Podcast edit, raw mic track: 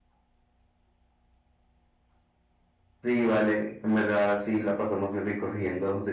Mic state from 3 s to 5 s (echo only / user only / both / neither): echo only